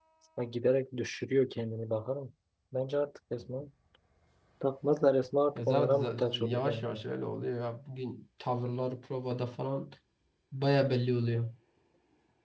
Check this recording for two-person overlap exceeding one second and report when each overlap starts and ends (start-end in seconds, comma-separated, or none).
5.5-7.0